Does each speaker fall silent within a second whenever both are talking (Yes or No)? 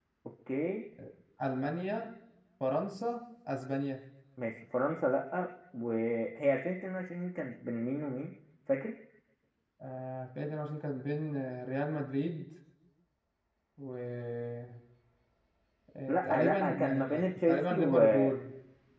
No